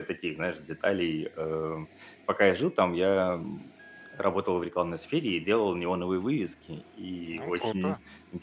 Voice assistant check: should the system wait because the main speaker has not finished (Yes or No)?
Yes